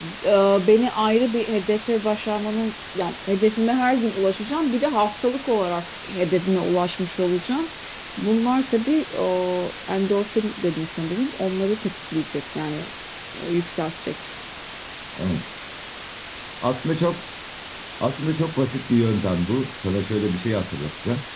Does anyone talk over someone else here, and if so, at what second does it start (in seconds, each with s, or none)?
none